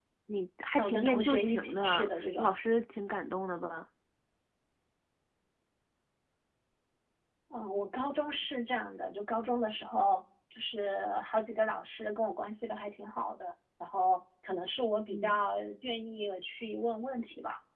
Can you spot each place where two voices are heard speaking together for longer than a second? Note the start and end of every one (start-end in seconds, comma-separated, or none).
0.8-2.5